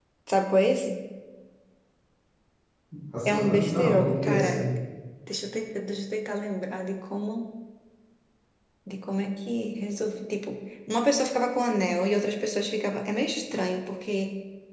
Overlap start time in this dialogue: 3.2 s

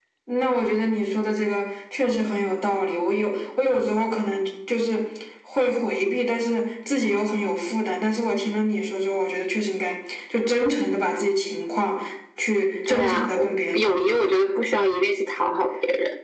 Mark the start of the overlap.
12.9 s

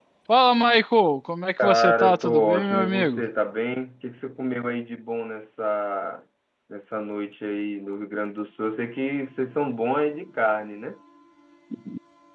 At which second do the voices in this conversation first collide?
1.6 s

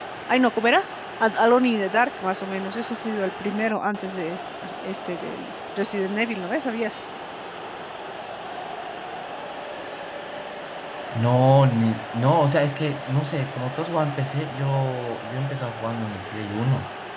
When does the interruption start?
none

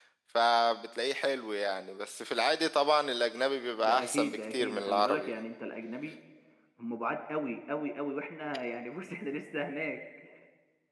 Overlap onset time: 3.8 s

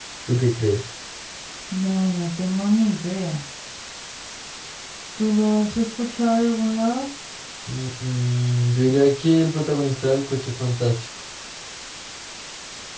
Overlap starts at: none

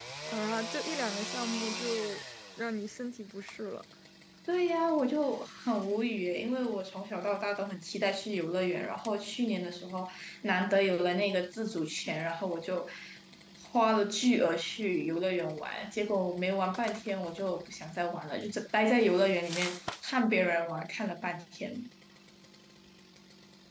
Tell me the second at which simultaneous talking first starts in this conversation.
none

